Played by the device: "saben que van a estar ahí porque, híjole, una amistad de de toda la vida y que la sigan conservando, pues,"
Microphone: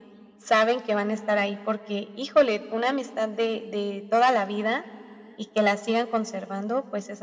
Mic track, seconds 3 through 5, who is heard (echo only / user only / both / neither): echo only